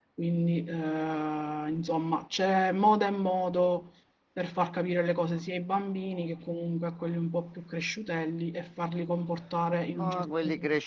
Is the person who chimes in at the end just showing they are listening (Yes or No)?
No